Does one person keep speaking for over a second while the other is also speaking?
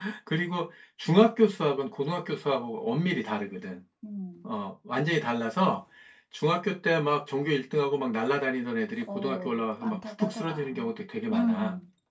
Yes, from 9.2 s

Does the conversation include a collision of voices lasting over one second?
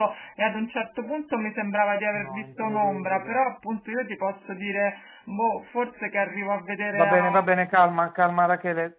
Yes, from 2.1 s

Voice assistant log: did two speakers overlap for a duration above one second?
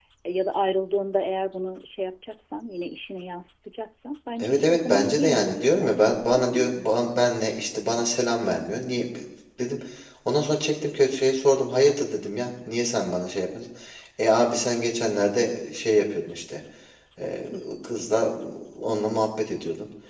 Yes, from 4.4 s

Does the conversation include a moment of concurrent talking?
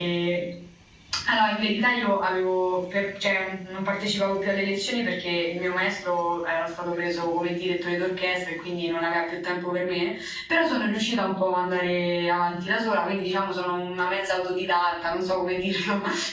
No

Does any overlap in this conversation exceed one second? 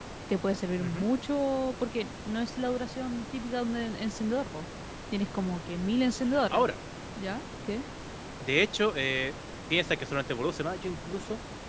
No

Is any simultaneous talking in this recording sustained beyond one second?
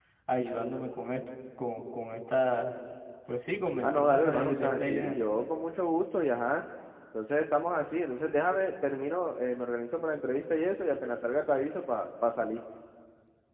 Yes, from 3.8 s

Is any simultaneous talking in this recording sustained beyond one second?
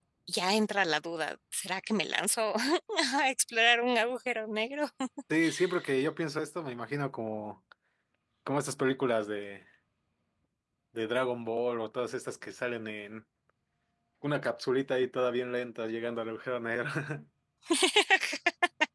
No

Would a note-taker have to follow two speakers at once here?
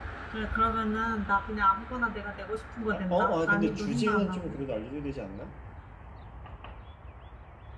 Yes, from 3.1 s

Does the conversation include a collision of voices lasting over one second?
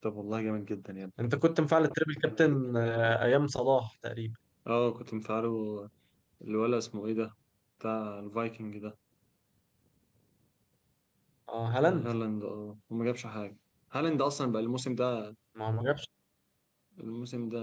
No

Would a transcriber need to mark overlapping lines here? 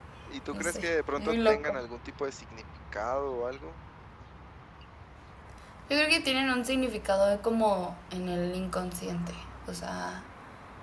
Yes, from 0.5 s

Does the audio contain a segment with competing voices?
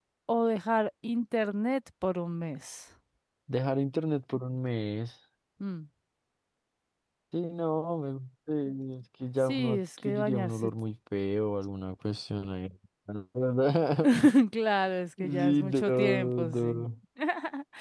Yes, from 9.4 s

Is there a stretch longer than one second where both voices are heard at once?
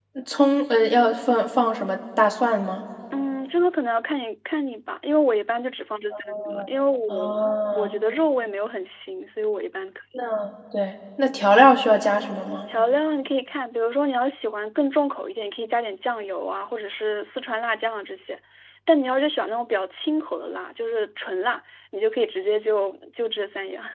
No

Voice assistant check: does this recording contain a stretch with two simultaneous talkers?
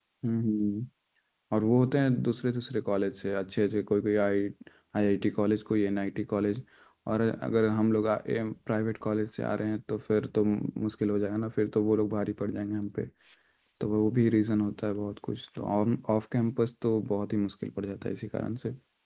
No

